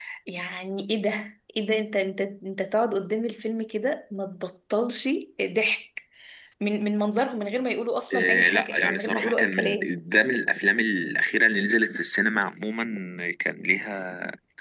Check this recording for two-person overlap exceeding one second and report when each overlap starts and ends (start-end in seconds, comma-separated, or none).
8.1-9.9